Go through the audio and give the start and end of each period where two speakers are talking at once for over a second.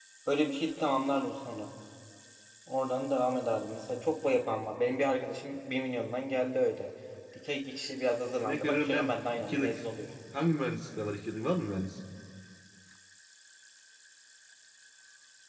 8.4-9.8

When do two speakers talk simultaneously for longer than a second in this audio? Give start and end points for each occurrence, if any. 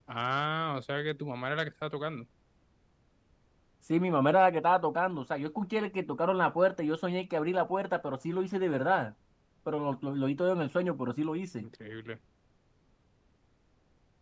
none

